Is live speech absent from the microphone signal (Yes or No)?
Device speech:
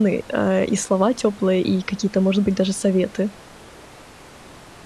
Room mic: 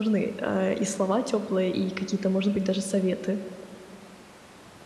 Yes